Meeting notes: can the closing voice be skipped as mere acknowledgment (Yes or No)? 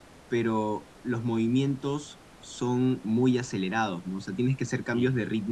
Yes